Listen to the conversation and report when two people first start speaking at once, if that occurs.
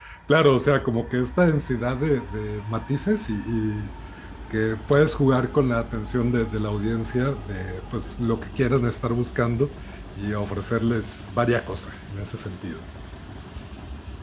none

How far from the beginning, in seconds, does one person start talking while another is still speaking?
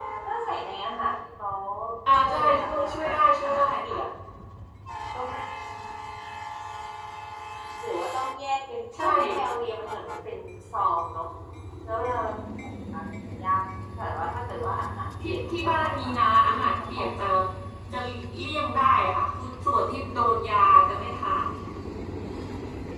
2.2 s

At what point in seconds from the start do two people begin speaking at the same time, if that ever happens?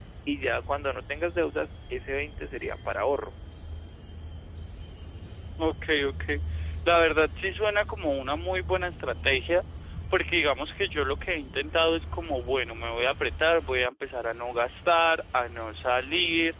none

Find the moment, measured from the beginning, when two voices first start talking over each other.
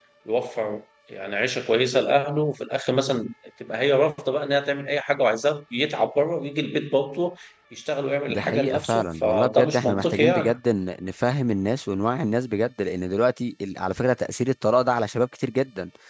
8.3 s

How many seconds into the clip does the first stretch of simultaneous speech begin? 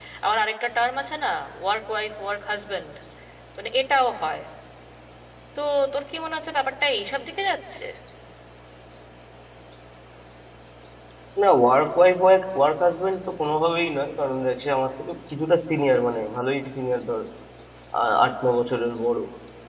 none

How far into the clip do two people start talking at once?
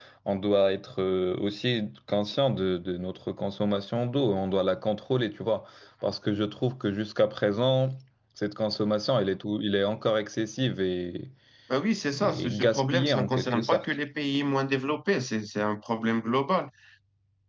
12.2 s

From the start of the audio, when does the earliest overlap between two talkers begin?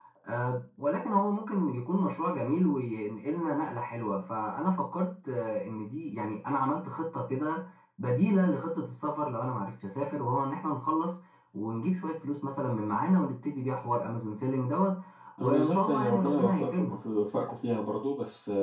15.4 s

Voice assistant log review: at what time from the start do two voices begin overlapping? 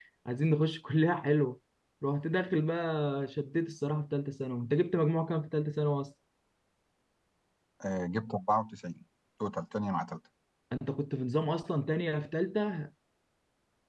none

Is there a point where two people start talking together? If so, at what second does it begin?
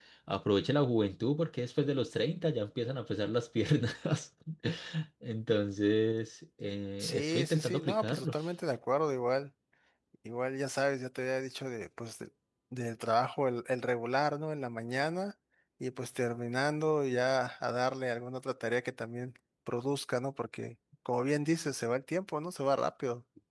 7.0 s

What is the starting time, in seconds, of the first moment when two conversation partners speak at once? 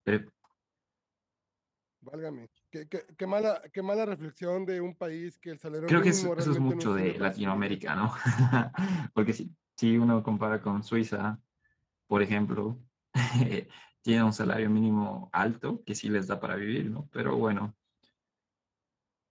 5.9 s

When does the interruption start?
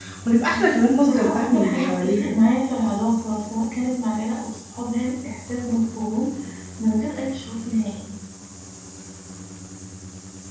1.0 s

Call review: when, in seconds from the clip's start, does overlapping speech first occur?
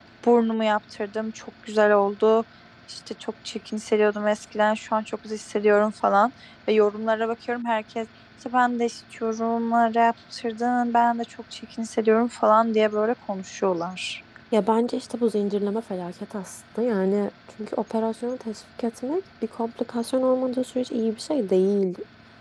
none

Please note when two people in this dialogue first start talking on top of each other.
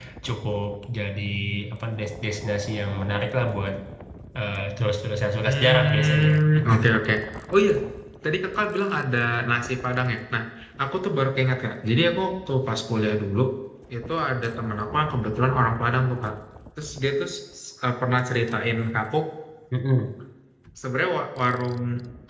5.4 s

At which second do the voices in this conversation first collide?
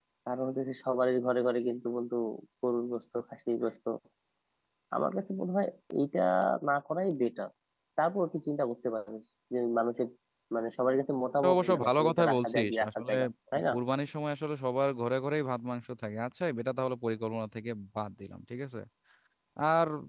11.4 s

